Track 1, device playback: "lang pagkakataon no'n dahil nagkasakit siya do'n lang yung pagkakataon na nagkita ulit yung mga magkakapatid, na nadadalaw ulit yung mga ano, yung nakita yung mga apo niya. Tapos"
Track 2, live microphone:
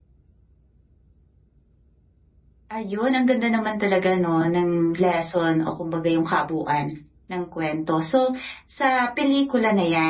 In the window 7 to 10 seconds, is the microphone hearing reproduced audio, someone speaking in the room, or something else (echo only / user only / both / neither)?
user only